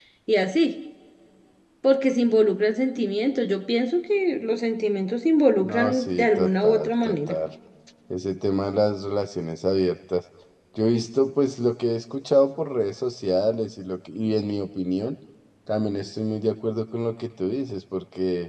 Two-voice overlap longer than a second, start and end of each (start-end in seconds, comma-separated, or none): 5.6-7.4